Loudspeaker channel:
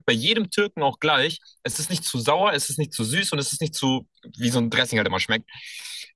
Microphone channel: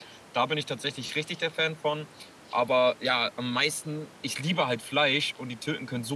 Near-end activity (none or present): present